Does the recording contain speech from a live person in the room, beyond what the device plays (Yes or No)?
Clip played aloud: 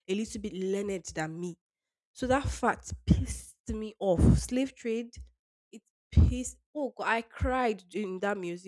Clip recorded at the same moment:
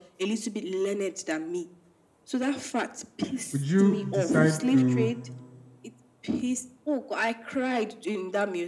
Yes